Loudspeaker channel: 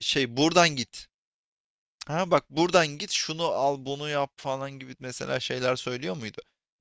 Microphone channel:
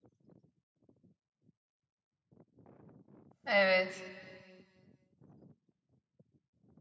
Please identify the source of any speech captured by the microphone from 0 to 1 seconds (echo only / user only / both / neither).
neither